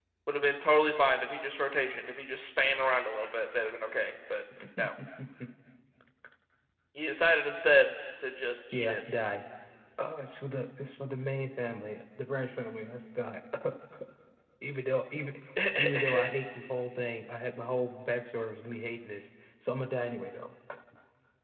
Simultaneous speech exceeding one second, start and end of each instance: none

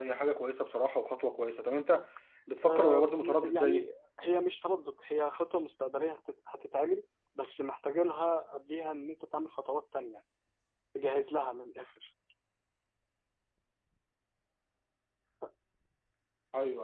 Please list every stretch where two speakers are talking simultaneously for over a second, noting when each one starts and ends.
2.7-3.9

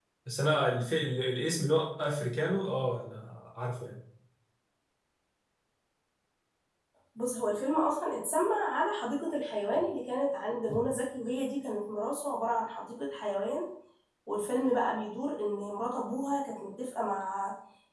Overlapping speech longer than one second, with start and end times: none

